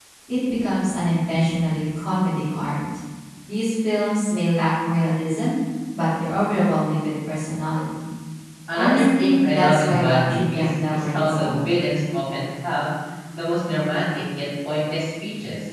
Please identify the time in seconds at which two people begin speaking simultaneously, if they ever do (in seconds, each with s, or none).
8.7 s